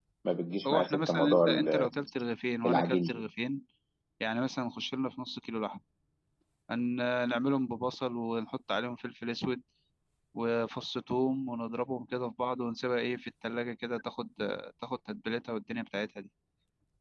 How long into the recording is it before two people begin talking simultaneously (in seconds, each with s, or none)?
0.7 s